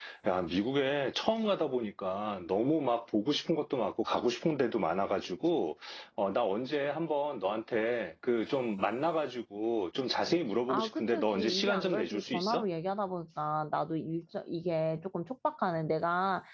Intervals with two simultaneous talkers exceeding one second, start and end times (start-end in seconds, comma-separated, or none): 10.7-12.6